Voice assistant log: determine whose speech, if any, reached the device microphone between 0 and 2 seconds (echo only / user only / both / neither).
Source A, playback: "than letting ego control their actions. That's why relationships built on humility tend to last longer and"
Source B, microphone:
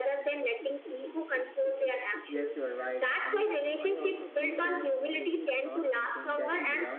echo only